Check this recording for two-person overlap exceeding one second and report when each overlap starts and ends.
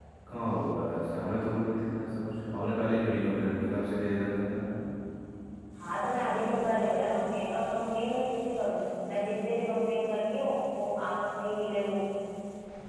none

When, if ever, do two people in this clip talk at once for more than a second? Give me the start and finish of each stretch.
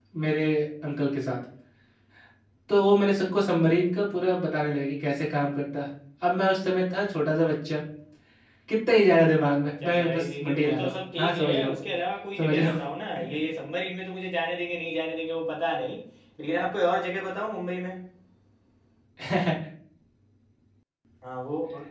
9.6-11.8

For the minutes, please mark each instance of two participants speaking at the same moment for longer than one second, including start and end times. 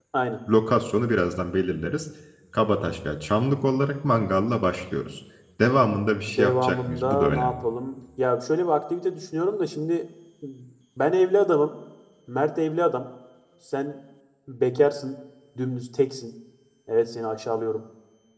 6.3-7.6

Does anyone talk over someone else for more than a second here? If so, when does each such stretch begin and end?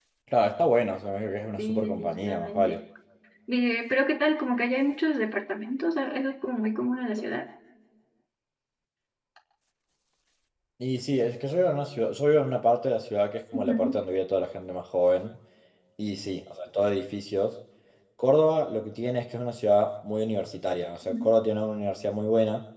1.6-2.8

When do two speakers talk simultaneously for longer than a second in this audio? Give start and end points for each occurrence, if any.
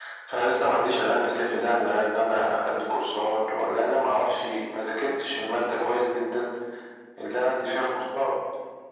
none

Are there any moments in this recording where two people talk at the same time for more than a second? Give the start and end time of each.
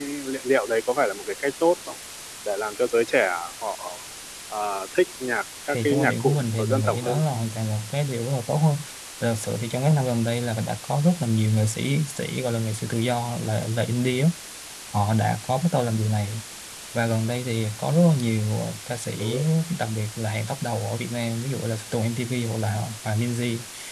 5.7-7.2

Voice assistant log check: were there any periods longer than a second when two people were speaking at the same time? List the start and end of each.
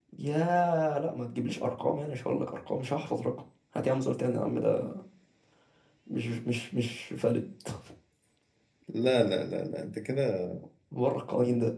none

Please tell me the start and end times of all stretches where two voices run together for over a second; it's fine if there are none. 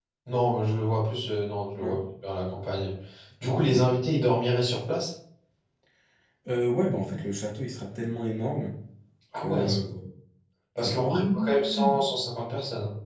10.8-12.0

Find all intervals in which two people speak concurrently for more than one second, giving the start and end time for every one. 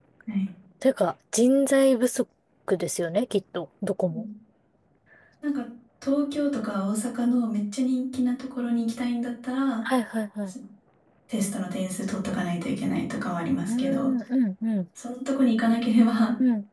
none

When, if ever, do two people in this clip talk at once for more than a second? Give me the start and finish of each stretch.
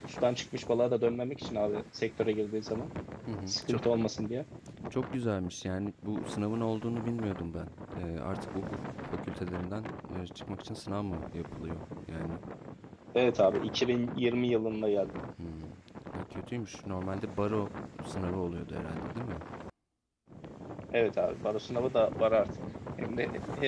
none

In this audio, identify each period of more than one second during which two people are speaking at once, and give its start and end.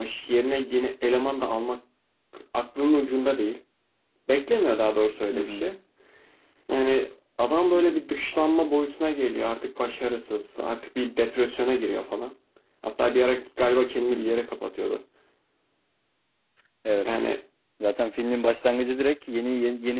none

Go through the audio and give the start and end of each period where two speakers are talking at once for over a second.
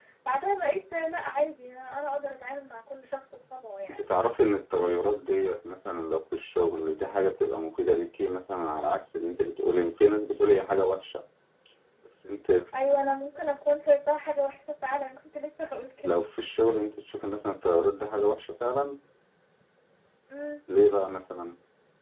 none

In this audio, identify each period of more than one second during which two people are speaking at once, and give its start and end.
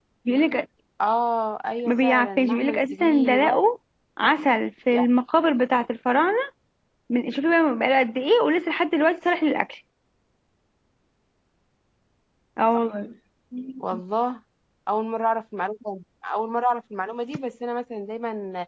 1.9-3.6

